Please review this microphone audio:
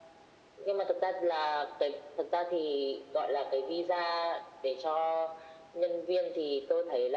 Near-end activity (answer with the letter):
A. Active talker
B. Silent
B